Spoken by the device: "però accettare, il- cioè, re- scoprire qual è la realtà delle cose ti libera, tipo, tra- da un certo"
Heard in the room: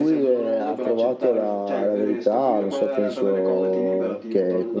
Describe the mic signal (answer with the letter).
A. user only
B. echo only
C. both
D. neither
C